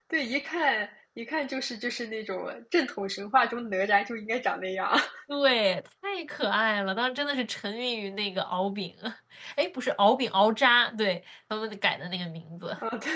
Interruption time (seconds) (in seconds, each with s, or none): none